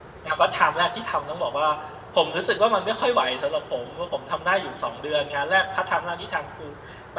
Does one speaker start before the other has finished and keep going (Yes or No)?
No